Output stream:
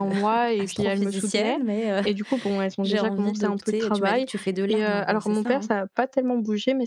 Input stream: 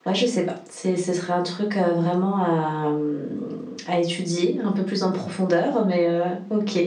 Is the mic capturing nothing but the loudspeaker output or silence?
No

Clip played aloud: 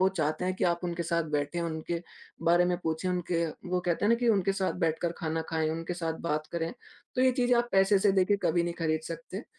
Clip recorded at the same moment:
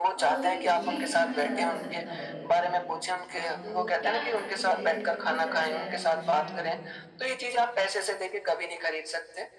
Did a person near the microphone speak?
Yes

